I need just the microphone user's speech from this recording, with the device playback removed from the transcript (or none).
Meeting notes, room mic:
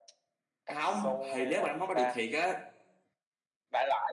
không thì nếu mà nó móc bắt được thiệt á